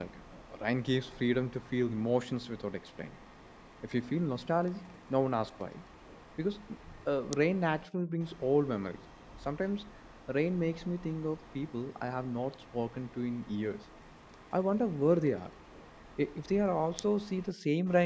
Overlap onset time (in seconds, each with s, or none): none